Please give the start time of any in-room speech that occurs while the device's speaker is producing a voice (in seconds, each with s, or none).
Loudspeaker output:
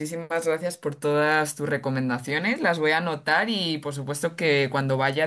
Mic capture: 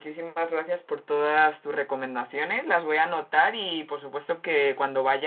none